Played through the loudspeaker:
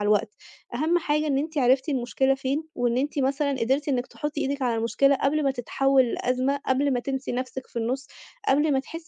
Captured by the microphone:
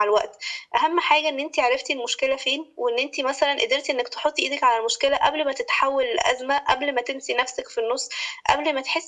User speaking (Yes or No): No